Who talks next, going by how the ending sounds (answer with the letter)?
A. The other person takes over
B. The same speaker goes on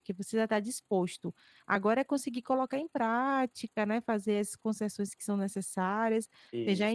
B